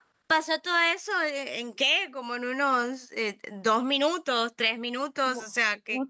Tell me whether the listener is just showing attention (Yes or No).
No